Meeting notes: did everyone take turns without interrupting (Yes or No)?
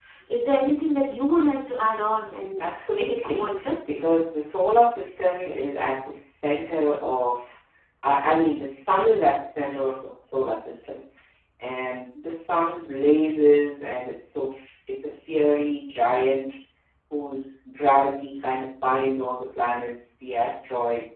No